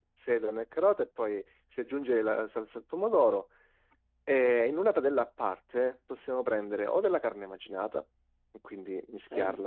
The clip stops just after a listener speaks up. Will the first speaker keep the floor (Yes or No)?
Yes